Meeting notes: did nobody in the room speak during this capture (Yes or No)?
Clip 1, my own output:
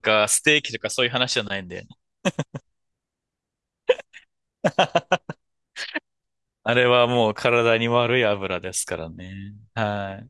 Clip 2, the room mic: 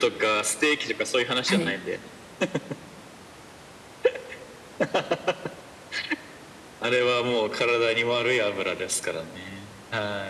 No